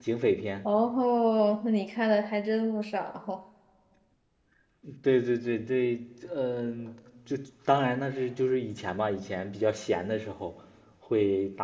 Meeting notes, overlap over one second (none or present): none